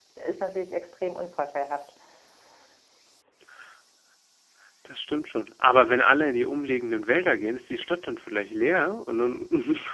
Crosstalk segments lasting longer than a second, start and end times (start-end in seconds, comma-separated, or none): none